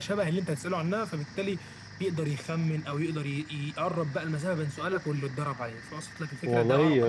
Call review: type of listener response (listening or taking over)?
taking over